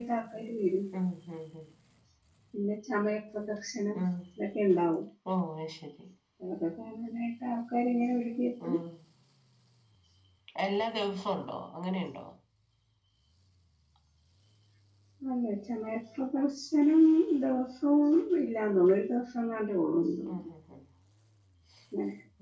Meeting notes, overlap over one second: none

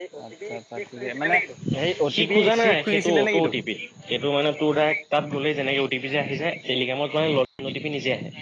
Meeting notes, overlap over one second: present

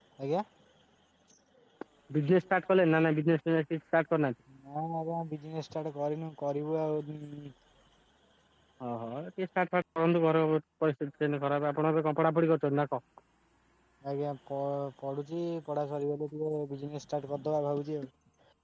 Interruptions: none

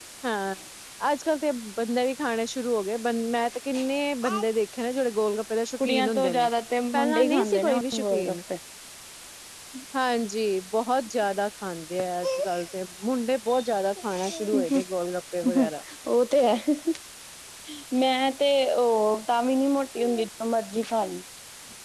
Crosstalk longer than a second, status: present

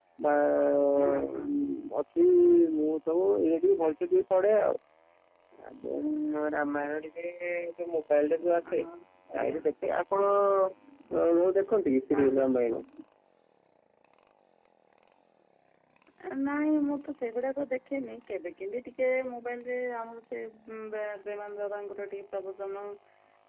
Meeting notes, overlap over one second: none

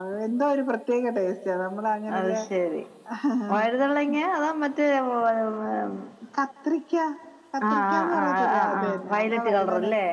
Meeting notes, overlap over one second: present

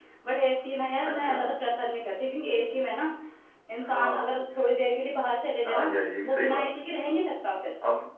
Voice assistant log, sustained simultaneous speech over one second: none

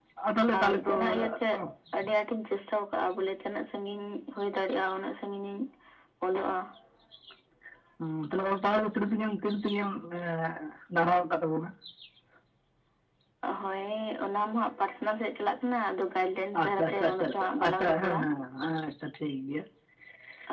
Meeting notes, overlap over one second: present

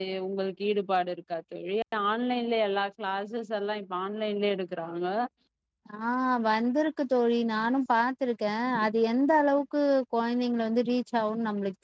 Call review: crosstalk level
none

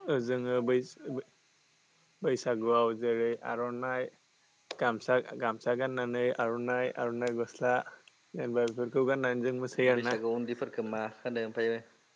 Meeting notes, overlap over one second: none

